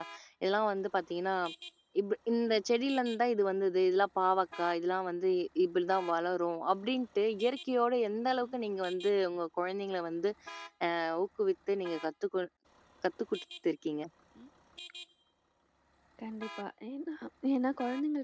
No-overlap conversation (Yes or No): Yes